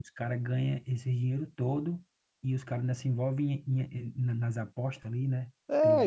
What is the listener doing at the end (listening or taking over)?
taking over